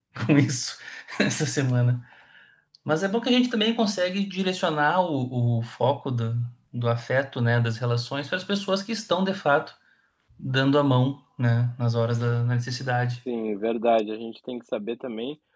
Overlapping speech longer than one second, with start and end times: none

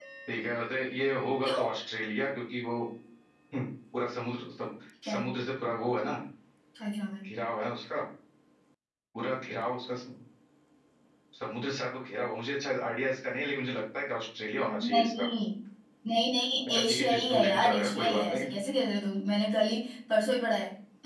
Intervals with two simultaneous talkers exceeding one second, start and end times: 16.7-18.4

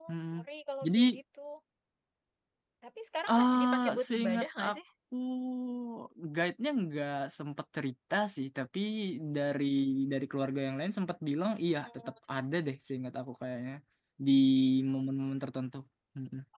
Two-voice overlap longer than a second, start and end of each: 3.3-4.8

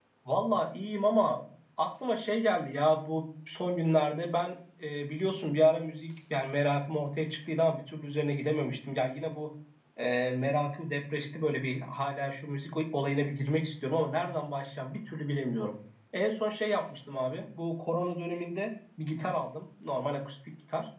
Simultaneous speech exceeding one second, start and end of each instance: none

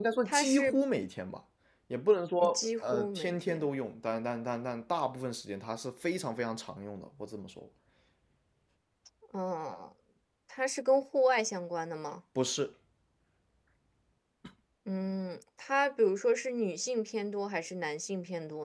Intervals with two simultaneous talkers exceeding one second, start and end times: 2.4-3.7

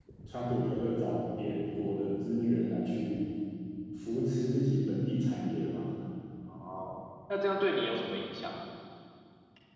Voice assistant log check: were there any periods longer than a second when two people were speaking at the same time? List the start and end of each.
none

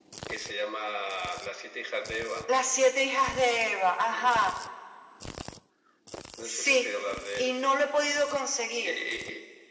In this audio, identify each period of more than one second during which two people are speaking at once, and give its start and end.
none

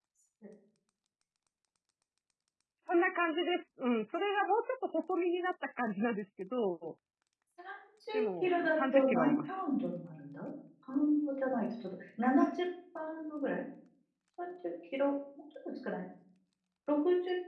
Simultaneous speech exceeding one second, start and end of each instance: 8.1-9.5

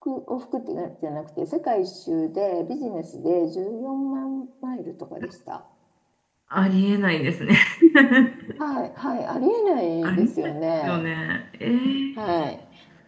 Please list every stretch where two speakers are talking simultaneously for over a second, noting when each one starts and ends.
none

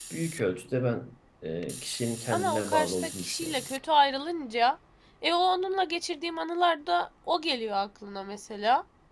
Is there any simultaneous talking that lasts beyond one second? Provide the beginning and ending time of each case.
2.3-3.7

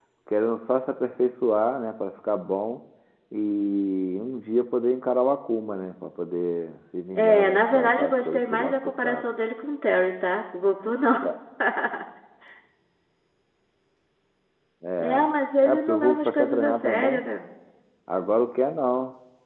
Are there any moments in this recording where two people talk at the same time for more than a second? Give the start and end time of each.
7.1-9.3, 15.7-17.2

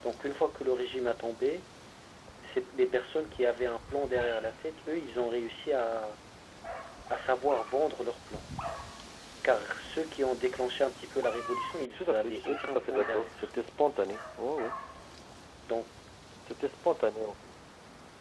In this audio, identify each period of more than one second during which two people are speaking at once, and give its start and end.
11.9-13.5

